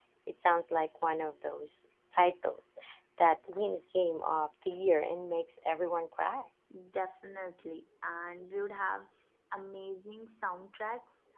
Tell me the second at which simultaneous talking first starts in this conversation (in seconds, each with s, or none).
none